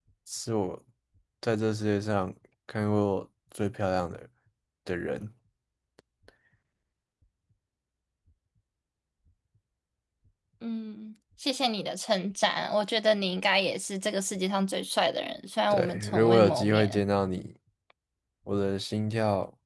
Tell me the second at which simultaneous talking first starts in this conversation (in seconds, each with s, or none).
15.7 s